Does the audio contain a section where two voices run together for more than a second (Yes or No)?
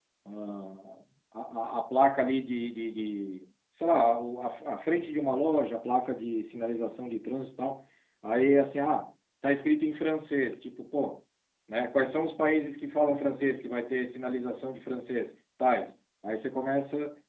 No